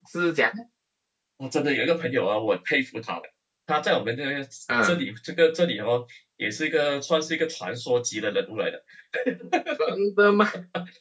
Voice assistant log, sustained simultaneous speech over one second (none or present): none